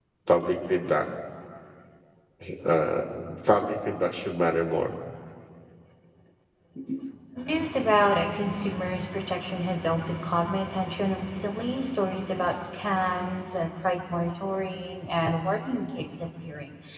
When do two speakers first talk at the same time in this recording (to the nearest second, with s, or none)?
none